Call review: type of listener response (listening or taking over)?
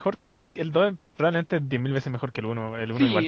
taking over